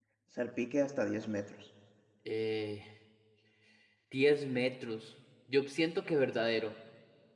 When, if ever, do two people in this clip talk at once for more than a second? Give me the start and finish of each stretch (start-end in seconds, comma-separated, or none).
none